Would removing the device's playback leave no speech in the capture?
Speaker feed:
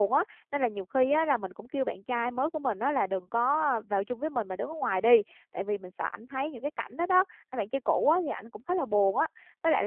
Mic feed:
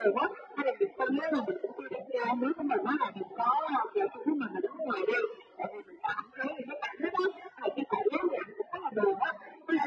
Yes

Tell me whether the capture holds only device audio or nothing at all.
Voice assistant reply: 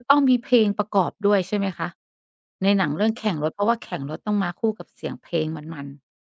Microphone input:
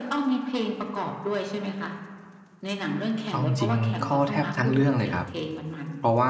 No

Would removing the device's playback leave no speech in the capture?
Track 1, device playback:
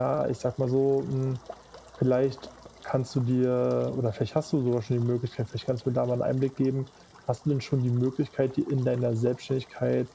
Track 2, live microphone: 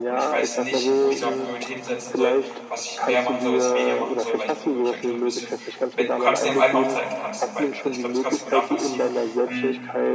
No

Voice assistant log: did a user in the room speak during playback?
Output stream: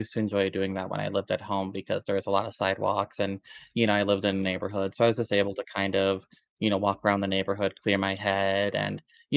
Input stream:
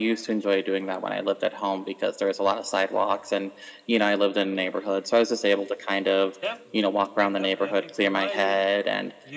Yes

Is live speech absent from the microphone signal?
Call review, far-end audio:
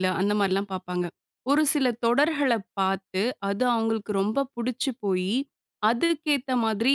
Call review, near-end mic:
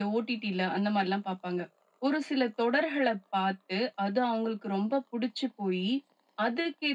Yes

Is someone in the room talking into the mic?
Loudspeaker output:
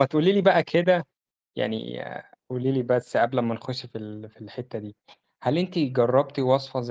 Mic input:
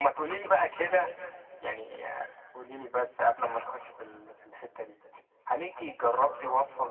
No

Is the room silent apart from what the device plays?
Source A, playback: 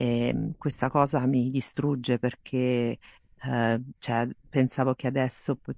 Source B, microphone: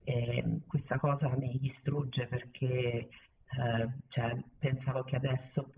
Yes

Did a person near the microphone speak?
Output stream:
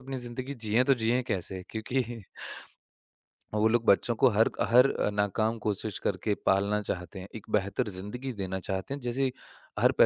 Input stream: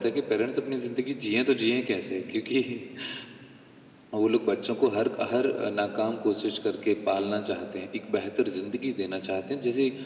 No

